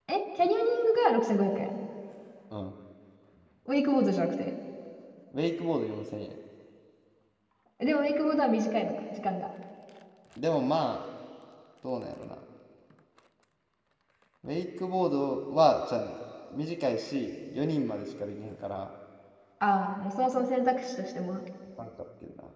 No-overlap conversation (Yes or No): Yes